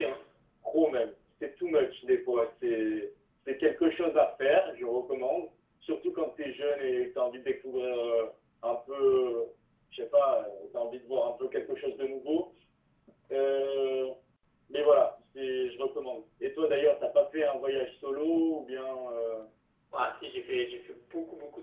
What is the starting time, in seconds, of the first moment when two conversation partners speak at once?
none

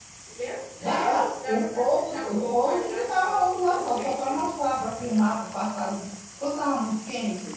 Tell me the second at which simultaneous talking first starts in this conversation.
0.8 s

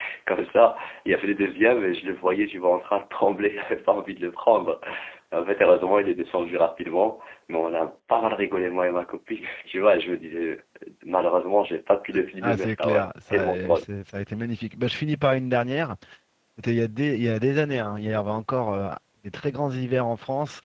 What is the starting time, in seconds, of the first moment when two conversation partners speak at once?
12.4 s

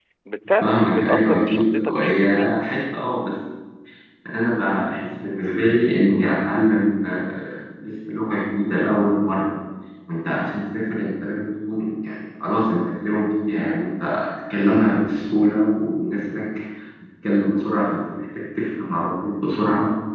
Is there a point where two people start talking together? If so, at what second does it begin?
0.6 s

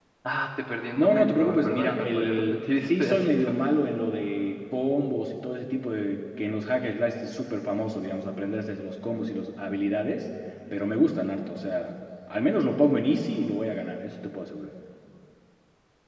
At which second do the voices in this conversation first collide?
0.9 s

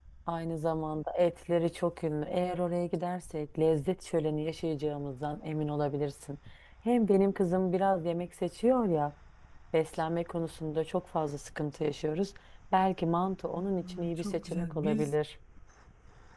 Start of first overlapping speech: 13.6 s

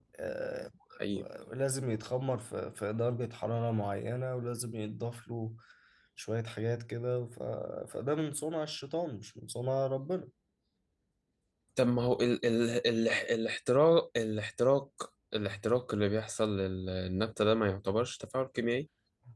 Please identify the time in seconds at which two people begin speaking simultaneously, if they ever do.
none

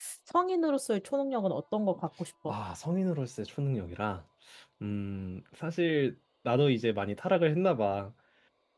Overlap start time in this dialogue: none

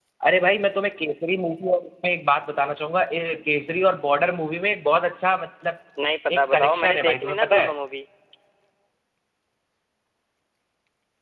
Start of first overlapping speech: 6.4 s

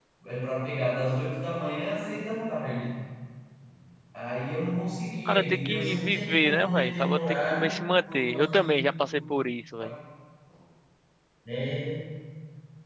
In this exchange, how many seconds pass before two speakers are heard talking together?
5.2 s

